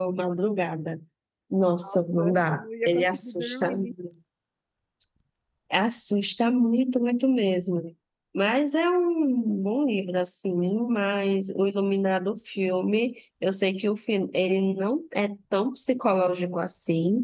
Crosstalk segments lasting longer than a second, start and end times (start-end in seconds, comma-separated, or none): 1.8-3.8